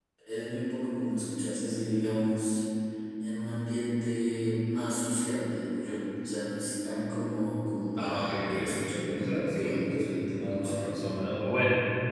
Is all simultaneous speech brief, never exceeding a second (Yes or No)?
No